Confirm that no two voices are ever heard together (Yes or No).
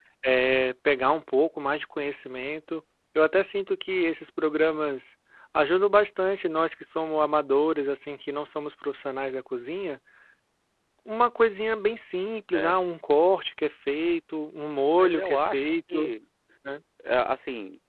No